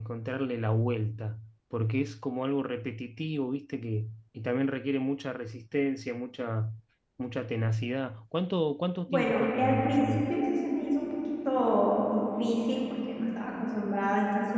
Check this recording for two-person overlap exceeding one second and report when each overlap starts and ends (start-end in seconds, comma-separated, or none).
9.0-10.4